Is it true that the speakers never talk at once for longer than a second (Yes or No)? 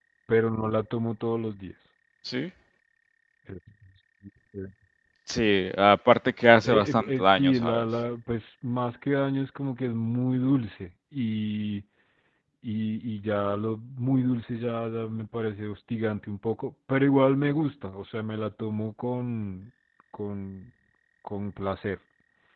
No